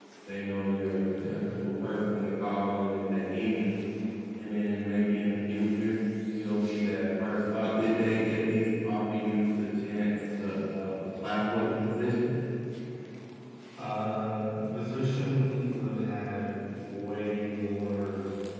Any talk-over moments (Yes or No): No